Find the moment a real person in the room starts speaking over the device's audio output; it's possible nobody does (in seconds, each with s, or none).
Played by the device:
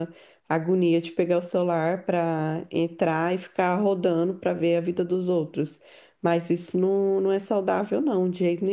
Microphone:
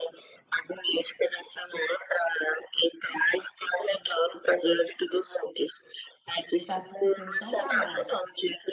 6.5 s